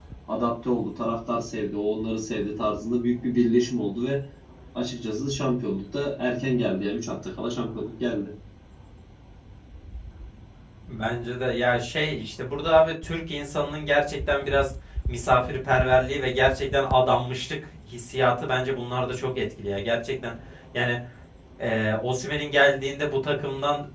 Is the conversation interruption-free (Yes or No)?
Yes